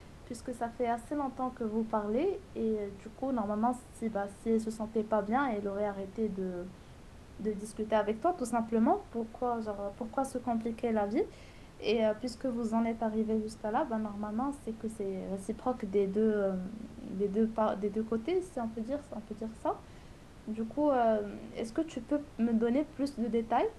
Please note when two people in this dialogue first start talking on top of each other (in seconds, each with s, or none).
none